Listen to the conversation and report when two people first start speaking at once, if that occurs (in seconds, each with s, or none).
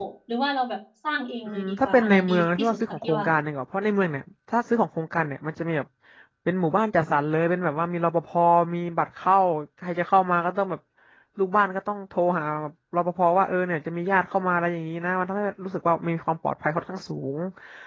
1.4 s